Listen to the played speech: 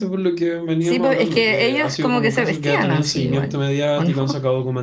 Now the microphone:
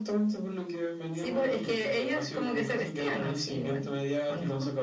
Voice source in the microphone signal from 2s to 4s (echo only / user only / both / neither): echo only